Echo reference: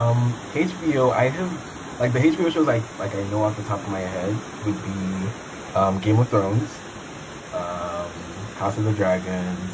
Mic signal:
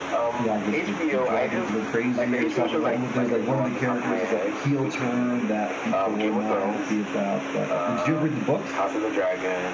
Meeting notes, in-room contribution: present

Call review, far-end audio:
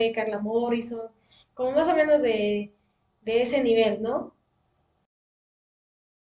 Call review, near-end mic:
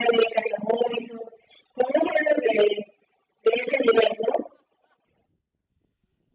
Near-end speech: none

